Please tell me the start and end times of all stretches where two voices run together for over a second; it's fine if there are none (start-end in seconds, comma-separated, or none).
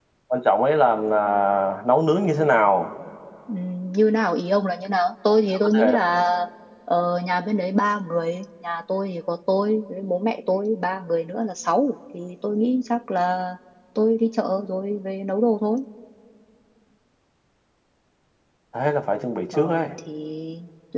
none